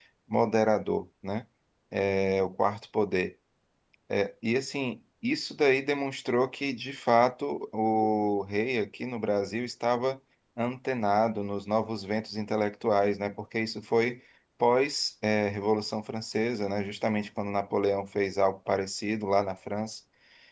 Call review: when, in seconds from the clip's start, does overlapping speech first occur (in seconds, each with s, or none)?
none